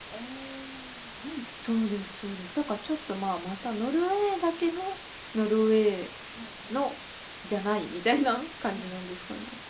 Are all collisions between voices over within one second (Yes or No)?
Yes